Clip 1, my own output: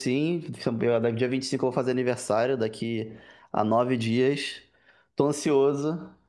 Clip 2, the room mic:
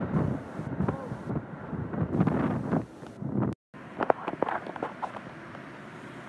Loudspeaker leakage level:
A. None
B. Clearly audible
A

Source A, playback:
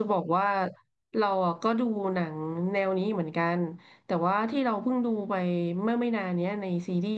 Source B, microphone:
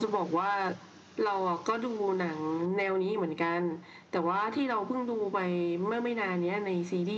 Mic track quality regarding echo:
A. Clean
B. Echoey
B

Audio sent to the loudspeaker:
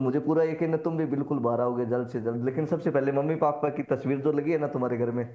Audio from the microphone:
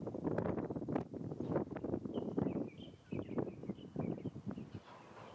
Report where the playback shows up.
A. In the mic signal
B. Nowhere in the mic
B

